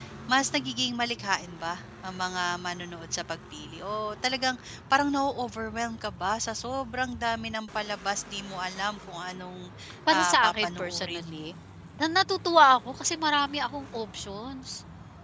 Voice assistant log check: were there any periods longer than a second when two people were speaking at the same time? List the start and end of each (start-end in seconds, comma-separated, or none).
10.1-11.5